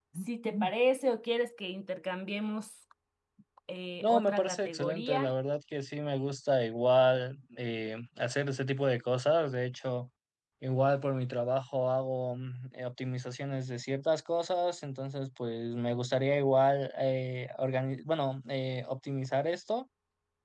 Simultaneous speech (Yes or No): Yes